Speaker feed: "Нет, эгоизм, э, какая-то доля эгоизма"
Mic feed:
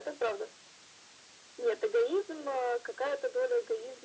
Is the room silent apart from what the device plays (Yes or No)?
Yes